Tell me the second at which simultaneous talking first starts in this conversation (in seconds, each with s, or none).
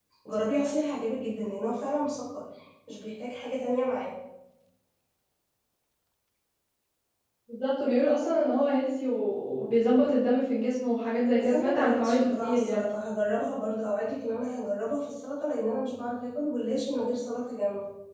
11.4 s